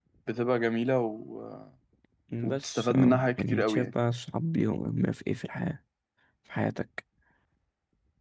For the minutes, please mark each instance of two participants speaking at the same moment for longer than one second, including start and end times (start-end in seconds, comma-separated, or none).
2.5-3.9